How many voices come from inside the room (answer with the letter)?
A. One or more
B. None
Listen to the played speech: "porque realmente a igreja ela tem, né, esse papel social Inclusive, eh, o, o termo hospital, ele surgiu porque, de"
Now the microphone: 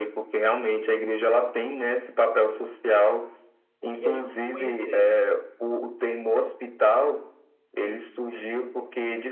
A